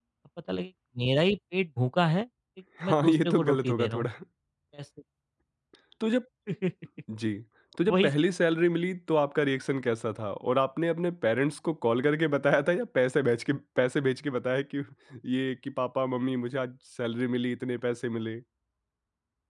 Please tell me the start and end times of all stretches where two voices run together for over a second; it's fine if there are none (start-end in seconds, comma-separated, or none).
2.9-4.1